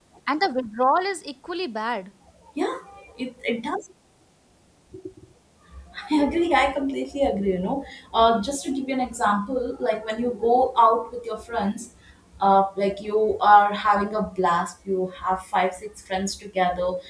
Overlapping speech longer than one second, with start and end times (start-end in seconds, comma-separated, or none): none